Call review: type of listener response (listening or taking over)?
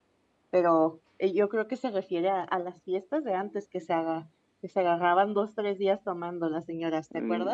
taking over